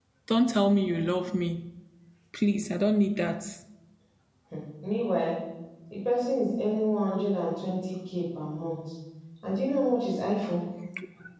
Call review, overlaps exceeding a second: none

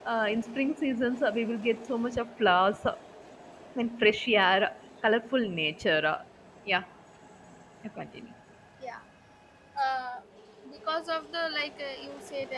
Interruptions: none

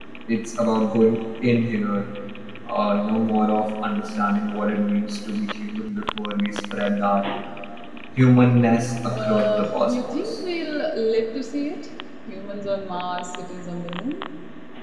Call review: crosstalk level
present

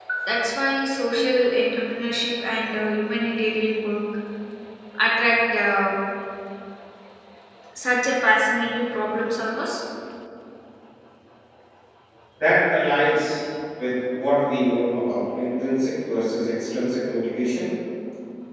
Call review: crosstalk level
none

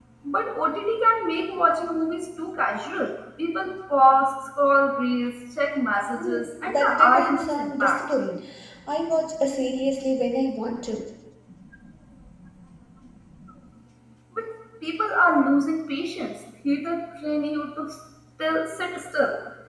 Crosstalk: present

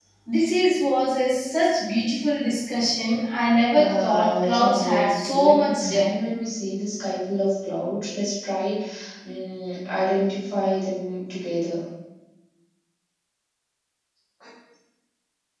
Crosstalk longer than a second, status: present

